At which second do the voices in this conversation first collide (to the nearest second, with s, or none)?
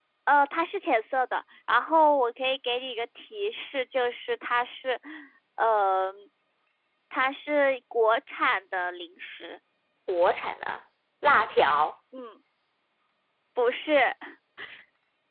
none